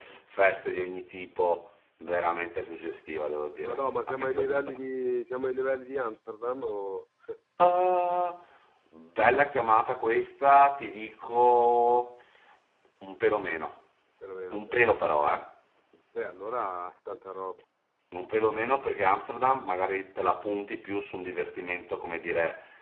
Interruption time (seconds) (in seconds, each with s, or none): 3.6 s